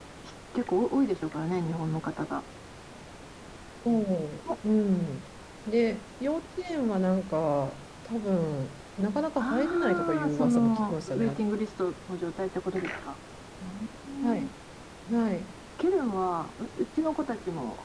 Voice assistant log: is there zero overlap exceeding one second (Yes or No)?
No